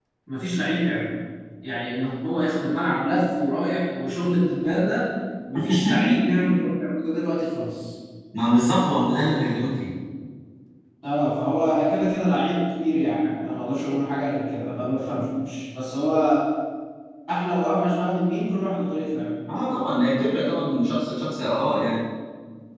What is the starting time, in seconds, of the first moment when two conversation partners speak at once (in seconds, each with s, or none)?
none